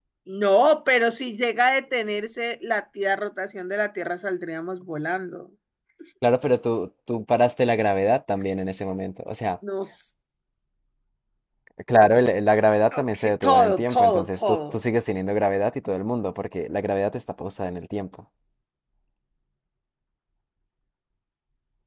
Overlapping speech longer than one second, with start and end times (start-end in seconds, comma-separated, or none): 12.9-14.8